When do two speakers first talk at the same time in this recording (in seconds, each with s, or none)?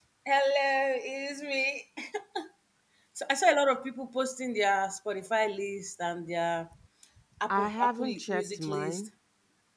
7.5 s